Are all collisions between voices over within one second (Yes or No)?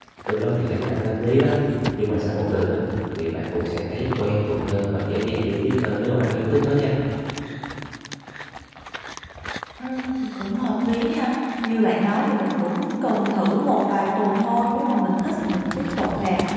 Yes